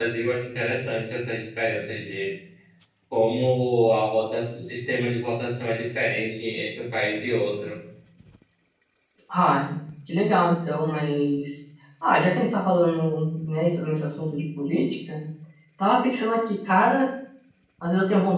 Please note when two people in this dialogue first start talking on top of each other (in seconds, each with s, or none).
none